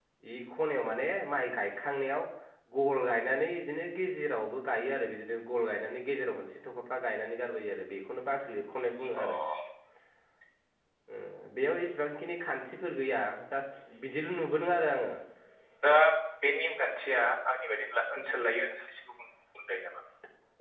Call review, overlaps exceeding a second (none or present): none